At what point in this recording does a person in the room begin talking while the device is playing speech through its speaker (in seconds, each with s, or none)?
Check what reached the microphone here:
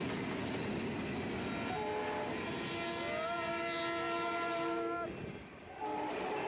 none